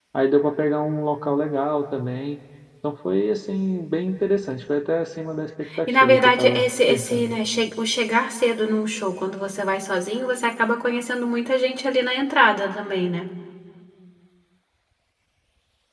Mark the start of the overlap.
5.7 s

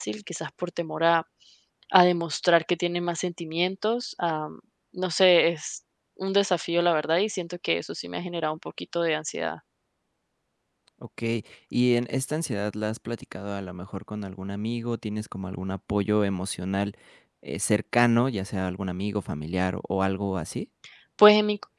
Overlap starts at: none

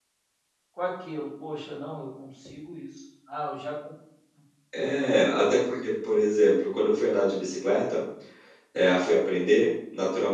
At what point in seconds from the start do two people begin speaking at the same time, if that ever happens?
none

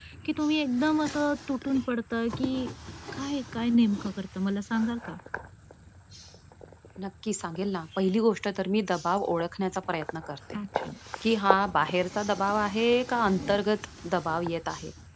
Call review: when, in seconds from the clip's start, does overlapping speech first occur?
none

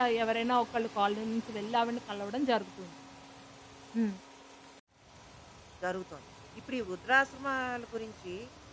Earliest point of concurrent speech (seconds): none

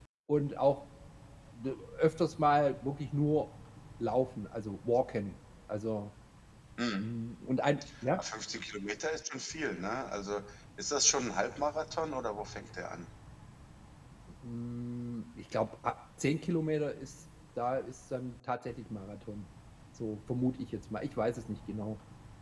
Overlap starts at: none

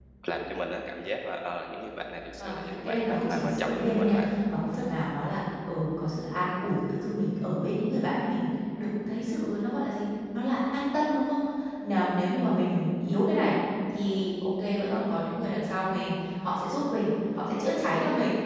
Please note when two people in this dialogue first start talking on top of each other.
2.4 s

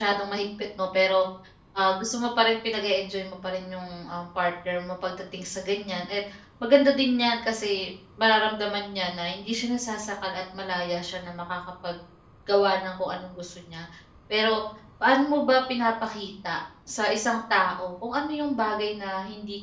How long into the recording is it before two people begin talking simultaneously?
none

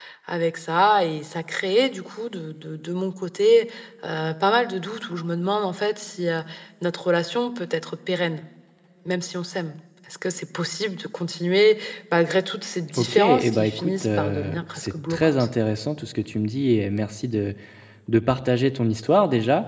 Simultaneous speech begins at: 13.0 s

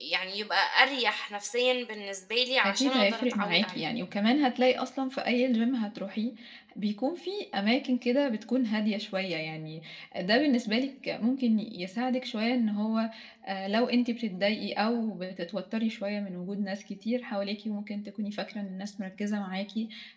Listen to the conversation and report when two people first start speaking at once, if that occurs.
2.6 s

